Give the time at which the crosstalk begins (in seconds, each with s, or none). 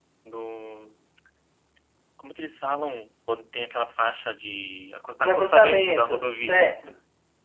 5.2 s